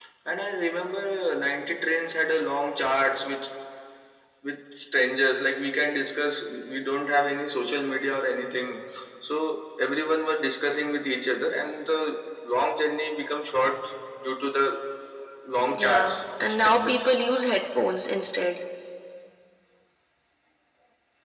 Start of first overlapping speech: 15.8 s

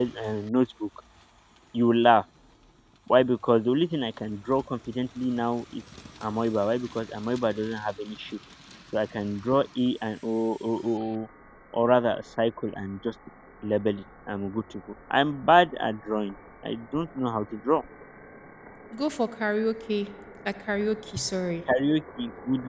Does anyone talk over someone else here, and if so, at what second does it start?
none

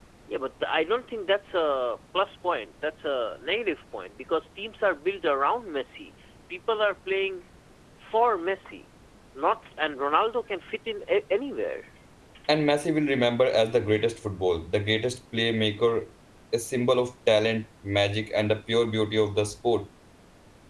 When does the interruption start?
none

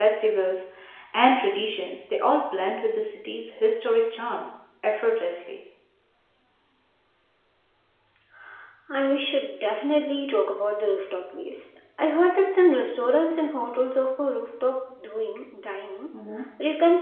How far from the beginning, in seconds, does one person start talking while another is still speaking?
none

